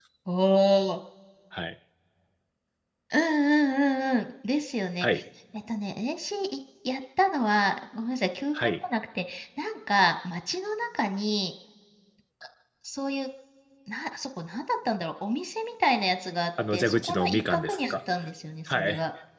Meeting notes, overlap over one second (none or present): present